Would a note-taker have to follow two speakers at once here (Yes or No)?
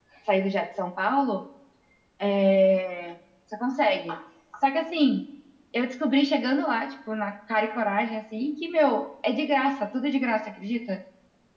No